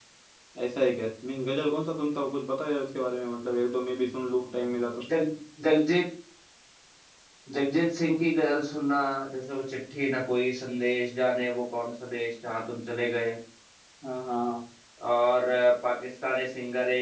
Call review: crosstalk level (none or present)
none